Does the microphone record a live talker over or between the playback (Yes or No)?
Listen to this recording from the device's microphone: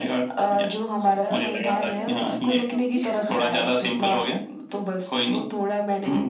Yes